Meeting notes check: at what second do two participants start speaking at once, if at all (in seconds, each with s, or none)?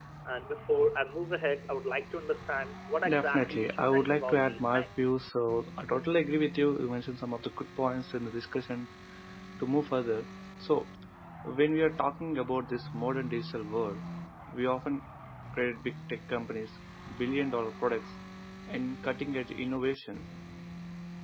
3.0 s